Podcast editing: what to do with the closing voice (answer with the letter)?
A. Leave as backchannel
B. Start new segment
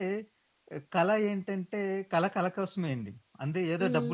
A